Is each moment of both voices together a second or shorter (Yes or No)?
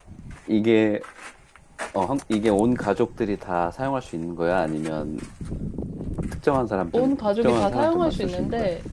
No